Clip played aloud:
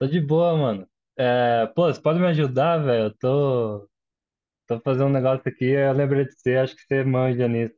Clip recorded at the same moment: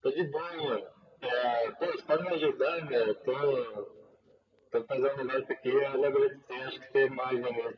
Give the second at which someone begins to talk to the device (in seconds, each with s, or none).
none